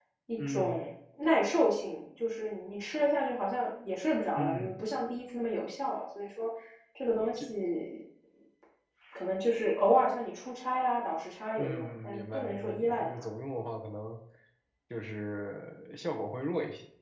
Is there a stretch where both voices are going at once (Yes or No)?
Yes